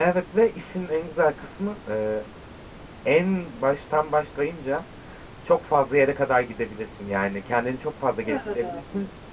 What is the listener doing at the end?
listening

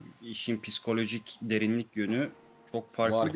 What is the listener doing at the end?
taking over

